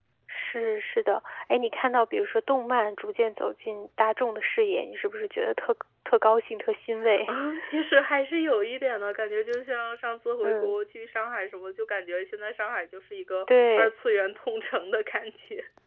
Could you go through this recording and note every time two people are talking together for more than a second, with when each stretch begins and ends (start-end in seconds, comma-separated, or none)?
none